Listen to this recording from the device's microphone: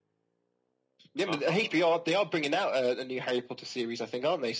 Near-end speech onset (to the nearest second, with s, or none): 1 s